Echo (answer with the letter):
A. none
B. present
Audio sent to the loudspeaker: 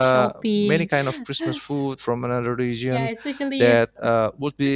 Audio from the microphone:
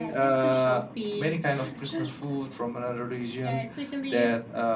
B